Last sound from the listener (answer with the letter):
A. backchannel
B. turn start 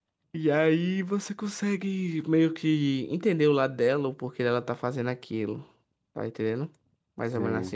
B